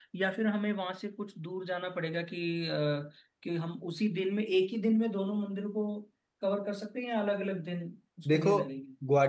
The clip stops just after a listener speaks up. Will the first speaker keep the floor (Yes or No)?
No